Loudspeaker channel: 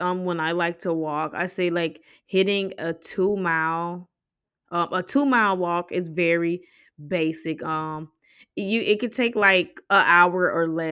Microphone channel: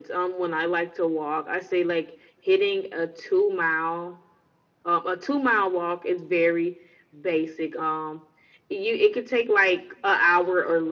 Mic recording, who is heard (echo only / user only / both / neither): echo only